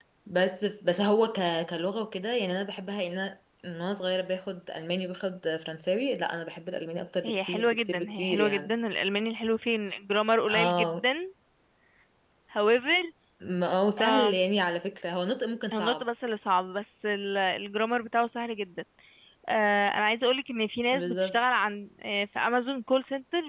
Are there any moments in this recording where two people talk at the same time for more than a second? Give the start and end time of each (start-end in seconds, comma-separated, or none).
7.2-8.7